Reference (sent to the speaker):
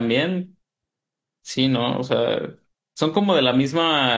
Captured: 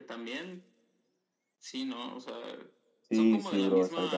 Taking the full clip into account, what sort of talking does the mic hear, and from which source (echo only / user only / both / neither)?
both